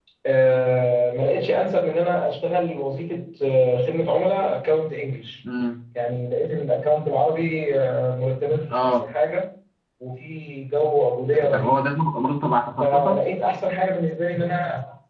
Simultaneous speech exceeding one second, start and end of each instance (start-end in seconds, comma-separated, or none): none